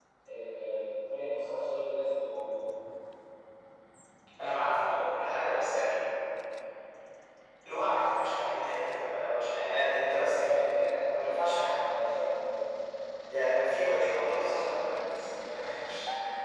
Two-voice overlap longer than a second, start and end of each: 10.3-11.6

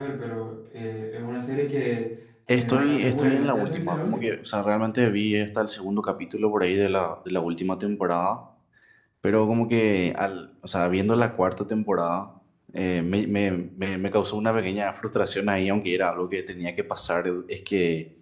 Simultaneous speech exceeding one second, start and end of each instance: 2.5-4.4

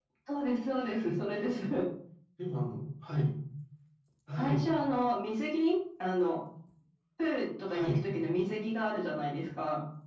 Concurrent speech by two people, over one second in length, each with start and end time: none

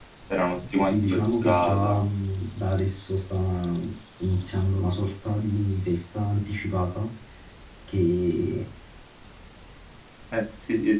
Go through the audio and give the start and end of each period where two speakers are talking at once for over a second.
0.8-2.1

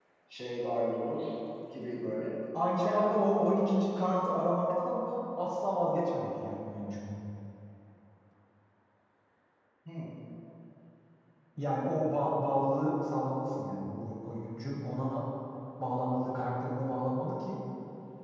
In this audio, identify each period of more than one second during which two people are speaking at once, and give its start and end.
none

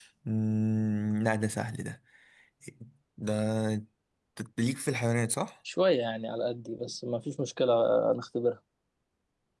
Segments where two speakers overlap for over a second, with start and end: none

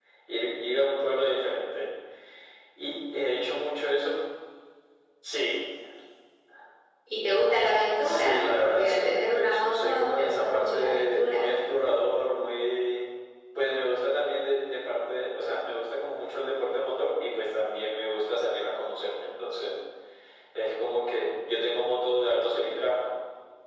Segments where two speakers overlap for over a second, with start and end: 8.0-11.6

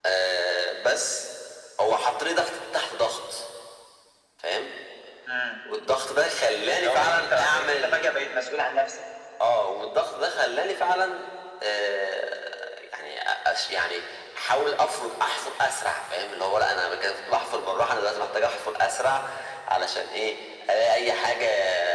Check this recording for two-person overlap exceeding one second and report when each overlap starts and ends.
6.7-8.1

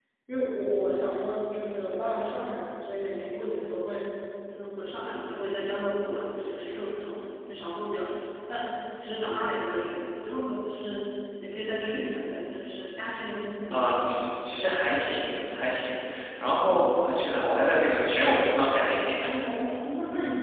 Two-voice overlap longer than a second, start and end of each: none

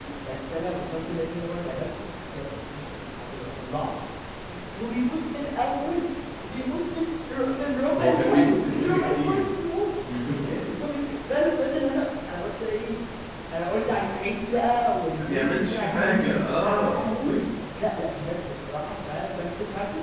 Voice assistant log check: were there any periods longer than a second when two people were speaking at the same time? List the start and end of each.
7.9-9.4, 15.2-17.2

